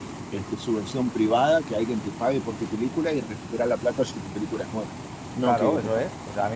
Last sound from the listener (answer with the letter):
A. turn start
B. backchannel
A